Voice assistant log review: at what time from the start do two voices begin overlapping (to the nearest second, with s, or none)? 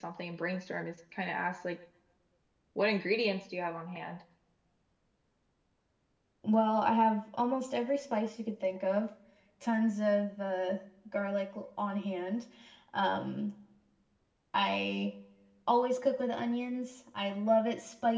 none